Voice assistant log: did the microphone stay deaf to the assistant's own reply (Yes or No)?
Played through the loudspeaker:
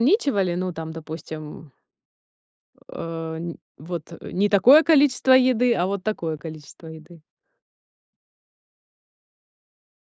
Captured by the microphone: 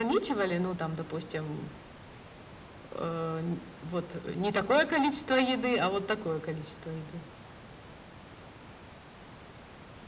No